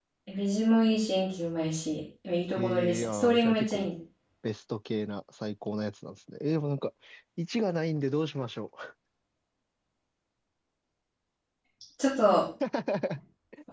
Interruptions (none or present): present